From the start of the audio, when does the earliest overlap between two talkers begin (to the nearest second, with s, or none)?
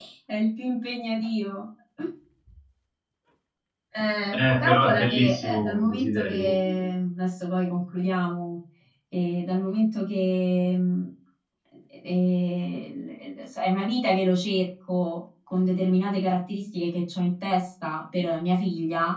4 s